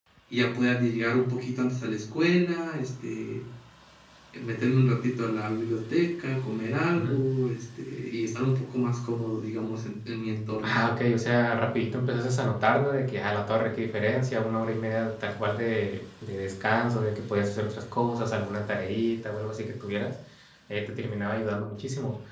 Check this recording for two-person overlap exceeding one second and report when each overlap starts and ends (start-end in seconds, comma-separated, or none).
none